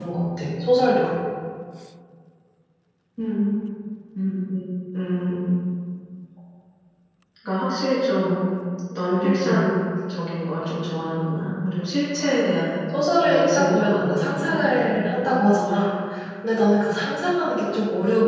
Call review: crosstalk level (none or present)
present